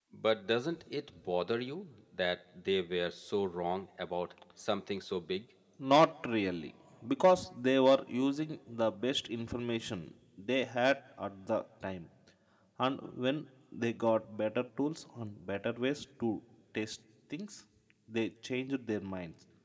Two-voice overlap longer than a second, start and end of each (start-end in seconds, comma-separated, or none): none